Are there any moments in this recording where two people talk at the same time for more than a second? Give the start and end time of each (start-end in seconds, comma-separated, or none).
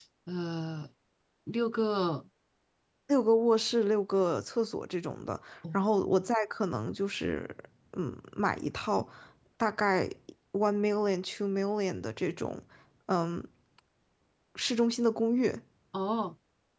none